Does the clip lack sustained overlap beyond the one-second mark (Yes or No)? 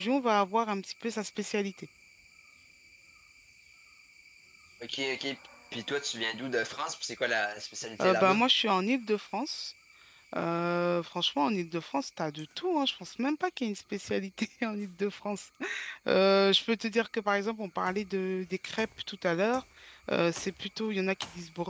Yes